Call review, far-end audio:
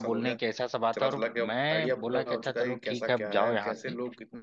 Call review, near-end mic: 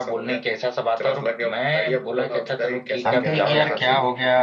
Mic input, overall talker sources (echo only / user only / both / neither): both